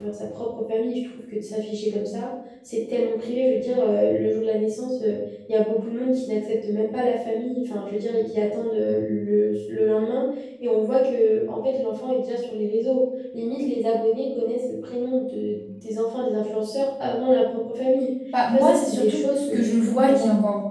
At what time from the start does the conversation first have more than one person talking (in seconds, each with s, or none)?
18.3 s